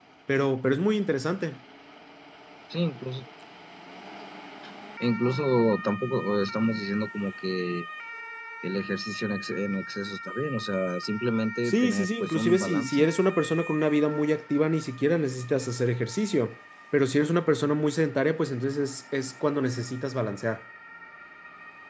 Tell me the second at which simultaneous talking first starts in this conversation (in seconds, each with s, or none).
11.7 s